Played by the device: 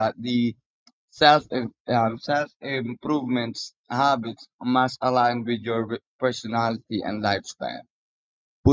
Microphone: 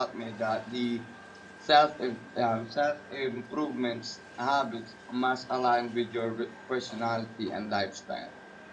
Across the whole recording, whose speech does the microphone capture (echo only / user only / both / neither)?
echo only